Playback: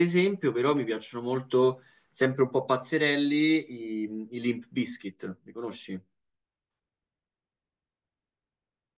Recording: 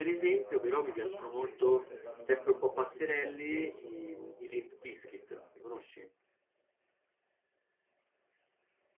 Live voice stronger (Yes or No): No